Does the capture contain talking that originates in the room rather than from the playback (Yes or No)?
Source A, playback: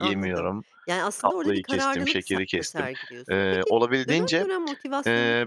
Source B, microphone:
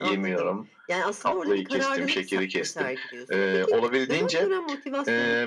No